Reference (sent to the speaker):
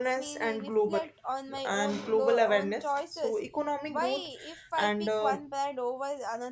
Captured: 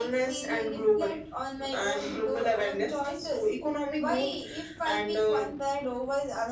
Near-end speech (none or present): none